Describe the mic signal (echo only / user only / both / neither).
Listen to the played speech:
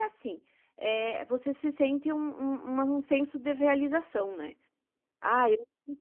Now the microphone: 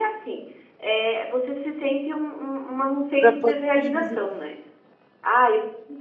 both